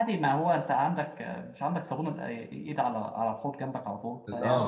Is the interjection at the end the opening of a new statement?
Yes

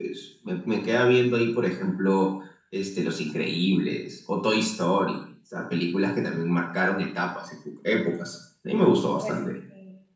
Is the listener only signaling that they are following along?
No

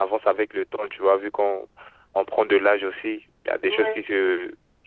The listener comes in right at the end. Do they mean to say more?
No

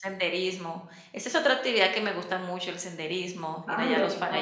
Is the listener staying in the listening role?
No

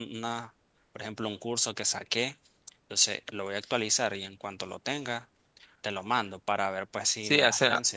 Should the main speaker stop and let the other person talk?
Yes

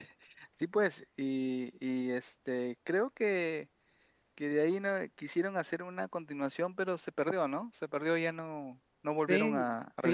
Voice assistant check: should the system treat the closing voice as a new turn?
Yes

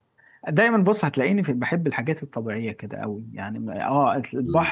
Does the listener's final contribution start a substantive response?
No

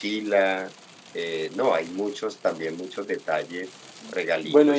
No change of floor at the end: No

